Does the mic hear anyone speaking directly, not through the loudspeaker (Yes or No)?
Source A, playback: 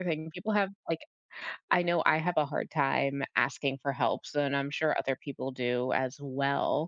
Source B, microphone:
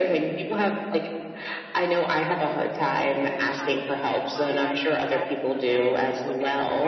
Yes